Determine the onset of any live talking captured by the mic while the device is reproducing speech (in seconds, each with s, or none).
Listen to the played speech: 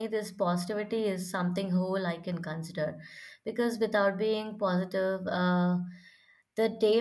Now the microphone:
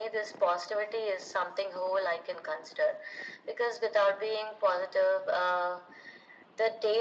none